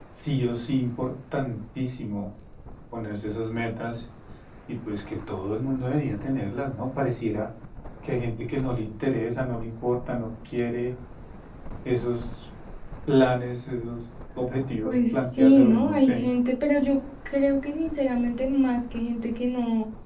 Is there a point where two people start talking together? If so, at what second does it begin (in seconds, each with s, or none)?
14.8 s